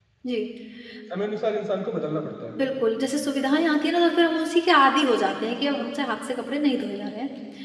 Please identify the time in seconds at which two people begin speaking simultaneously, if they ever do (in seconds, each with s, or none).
none